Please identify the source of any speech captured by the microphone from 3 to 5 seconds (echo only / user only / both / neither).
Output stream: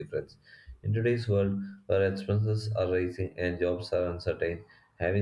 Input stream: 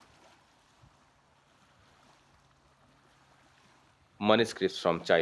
user only